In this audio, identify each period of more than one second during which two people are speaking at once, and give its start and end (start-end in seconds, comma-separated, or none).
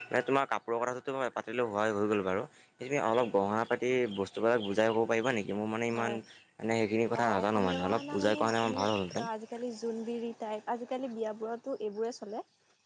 7.2-8.8